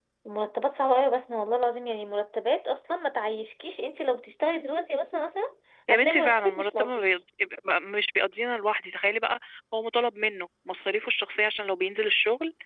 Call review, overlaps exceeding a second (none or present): present